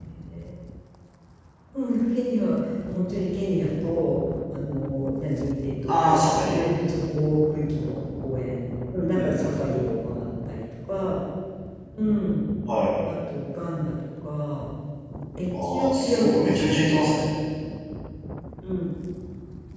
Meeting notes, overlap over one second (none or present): present